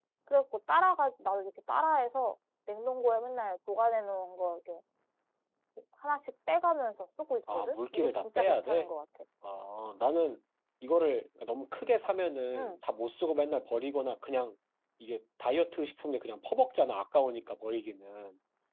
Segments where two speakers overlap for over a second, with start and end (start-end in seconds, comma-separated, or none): 7.5-8.9